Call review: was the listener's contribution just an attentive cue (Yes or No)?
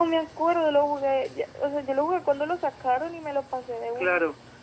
No